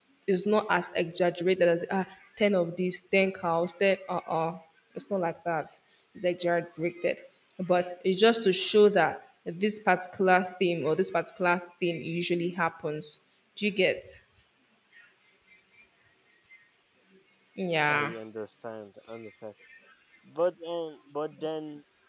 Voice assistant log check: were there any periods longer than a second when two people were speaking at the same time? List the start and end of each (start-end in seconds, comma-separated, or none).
none